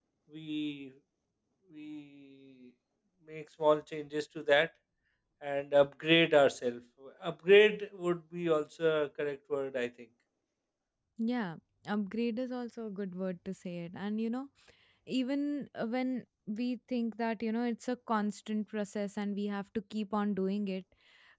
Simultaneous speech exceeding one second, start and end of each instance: none

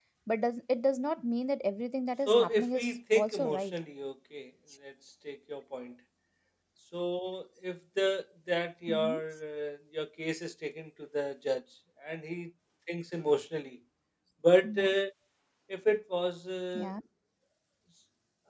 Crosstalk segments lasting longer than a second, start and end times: 2.3-3.8

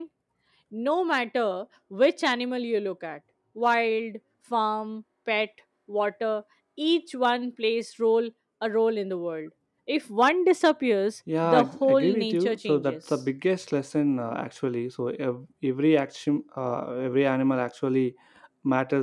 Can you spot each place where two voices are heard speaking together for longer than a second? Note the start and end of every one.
11.4-13.2

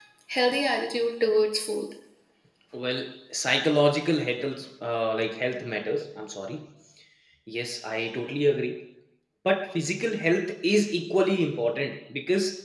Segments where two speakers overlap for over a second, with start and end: none

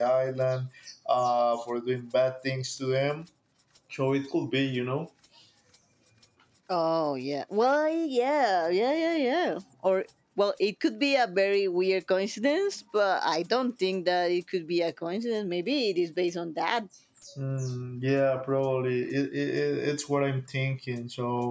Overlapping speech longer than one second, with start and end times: none

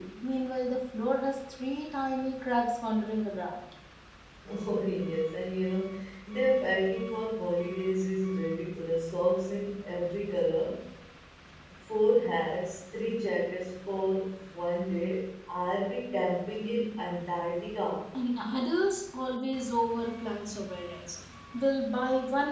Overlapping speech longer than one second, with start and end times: none

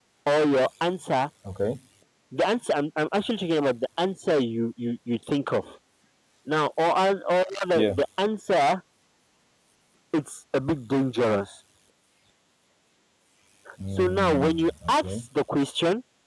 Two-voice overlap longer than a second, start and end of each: 14.0-15.2

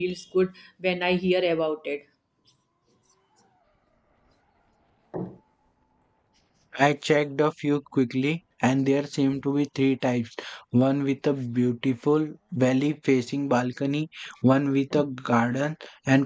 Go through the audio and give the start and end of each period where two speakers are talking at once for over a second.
none

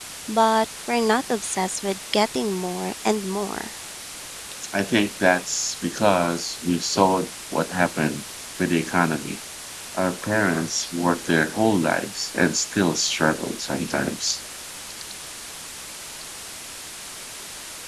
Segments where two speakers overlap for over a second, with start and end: none

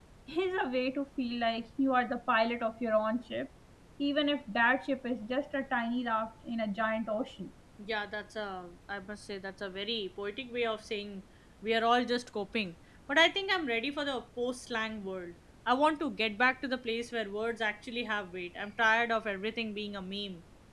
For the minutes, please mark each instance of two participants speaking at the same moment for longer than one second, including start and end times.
none

